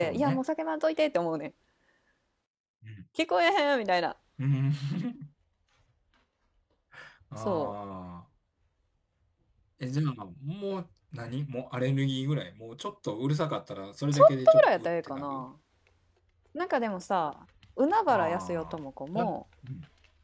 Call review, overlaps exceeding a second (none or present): present